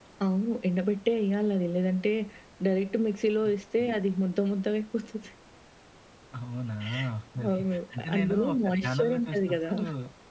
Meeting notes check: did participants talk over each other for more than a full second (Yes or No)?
Yes